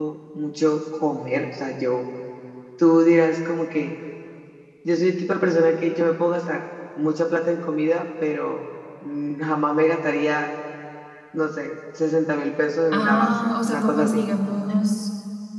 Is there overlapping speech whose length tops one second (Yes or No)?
Yes